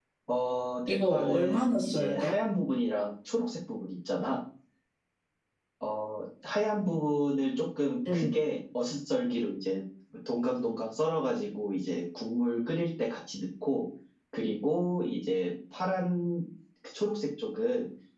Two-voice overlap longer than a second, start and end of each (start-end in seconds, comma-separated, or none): 0.9-2.3